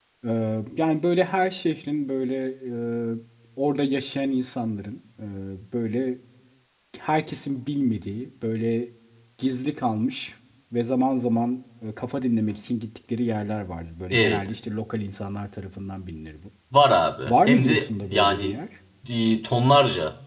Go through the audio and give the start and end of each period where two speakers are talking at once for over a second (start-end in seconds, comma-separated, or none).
17.3-18.5